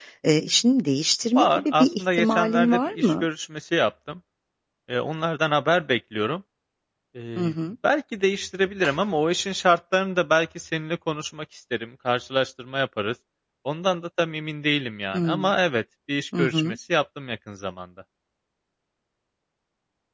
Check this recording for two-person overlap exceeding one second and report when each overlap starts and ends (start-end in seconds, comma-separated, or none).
1.4-3.2